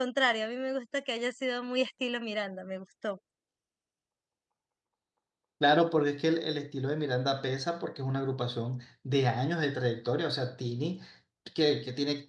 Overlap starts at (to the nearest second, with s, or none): none